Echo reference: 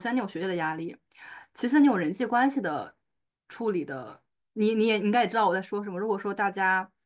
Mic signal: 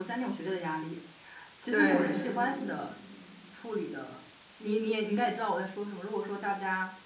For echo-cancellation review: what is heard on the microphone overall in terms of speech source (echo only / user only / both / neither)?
both